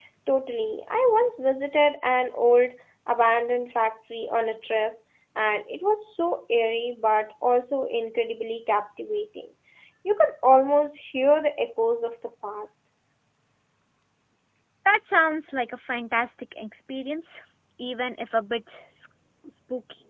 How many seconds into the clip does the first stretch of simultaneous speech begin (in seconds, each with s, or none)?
none